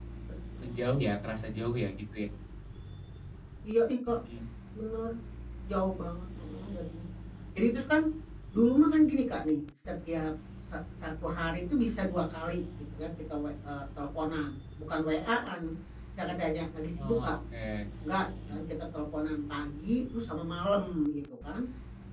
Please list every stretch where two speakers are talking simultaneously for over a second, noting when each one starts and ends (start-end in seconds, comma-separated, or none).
none